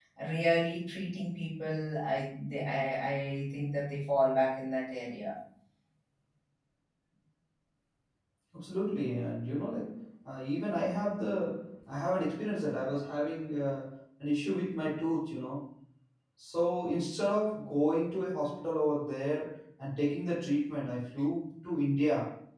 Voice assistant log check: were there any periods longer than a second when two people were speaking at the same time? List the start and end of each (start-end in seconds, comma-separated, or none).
none